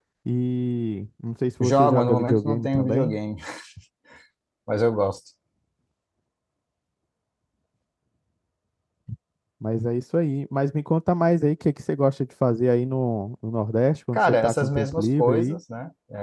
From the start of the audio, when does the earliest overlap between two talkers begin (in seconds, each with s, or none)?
1.6 s